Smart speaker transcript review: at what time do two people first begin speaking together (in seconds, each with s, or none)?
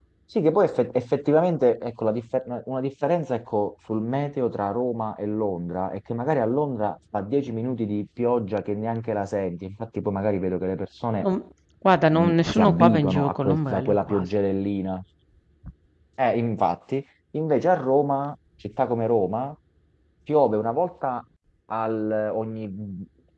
12.1 s